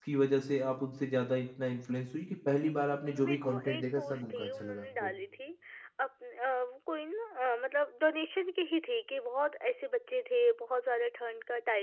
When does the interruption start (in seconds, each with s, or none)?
3.1 s